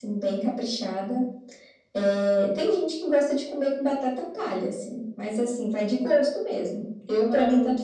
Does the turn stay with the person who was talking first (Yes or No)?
Yes